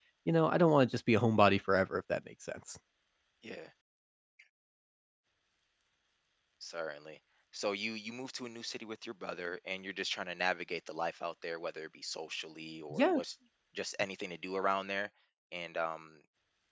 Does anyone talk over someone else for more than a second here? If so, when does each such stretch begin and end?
none

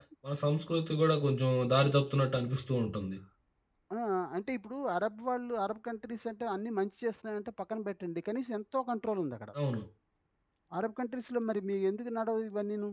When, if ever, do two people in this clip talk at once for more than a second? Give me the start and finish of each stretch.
none

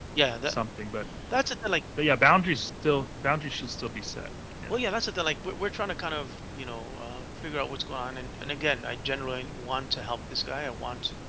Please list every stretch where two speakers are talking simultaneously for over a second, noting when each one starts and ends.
none

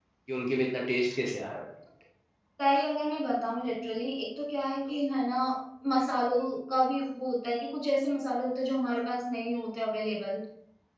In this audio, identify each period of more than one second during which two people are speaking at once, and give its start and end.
none

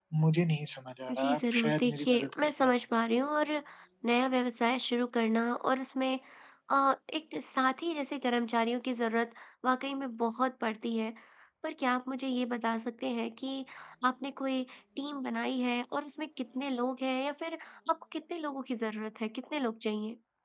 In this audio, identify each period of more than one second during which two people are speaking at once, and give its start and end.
1.1-2.5

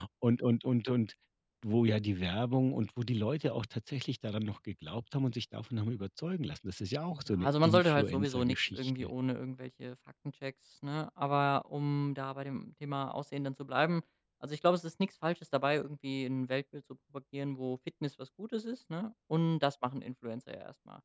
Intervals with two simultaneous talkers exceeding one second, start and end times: 7.1-9.1

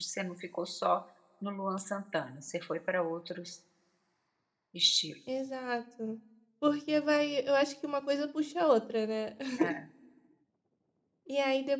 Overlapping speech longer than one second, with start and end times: none

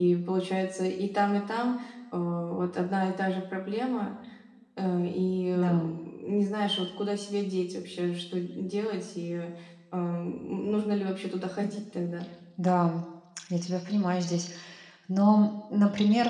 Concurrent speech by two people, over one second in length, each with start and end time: none

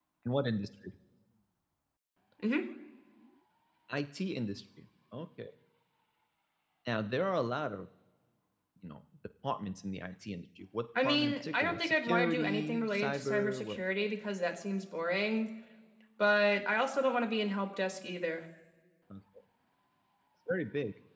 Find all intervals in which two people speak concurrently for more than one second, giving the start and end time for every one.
11.0-13.8

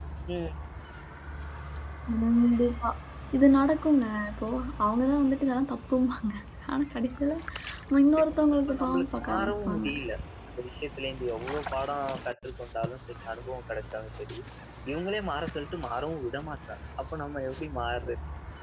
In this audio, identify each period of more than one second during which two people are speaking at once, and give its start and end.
8.1-9.9

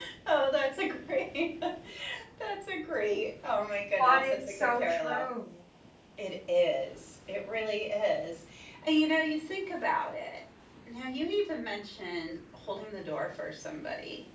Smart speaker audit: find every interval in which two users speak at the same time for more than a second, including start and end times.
4.0-5.2

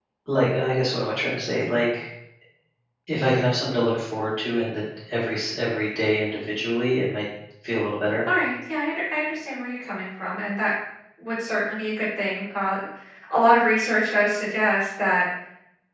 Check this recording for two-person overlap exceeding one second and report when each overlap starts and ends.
none

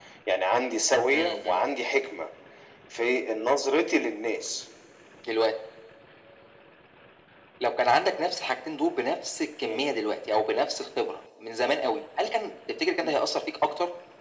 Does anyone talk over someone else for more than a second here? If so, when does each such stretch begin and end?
none

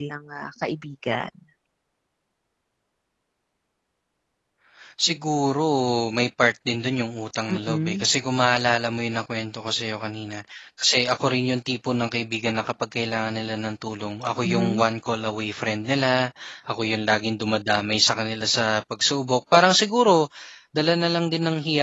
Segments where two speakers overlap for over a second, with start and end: none

